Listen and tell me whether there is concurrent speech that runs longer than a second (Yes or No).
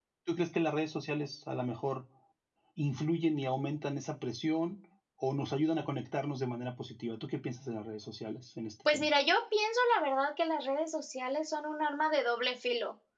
No